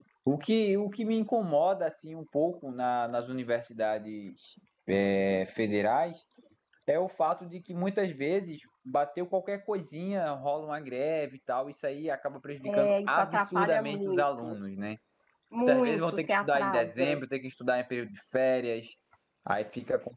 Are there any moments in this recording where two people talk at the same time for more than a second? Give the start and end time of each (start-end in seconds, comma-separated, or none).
12.7-14.6, 15.6-17.2